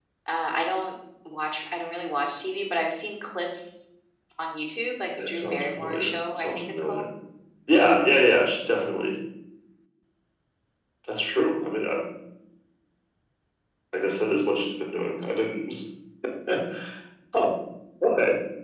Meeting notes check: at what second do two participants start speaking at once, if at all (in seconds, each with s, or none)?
5.2 s